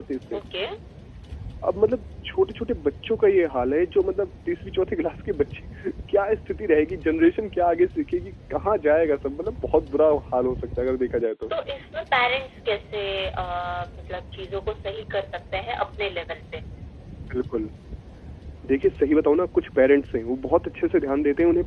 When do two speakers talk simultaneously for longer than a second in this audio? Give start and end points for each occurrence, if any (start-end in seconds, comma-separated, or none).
none